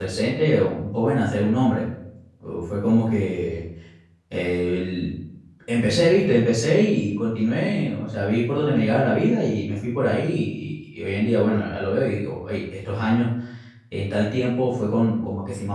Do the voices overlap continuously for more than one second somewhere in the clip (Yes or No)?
No